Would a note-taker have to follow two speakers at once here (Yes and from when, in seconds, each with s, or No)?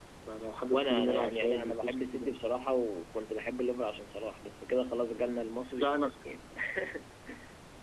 Yes, from 0.7 s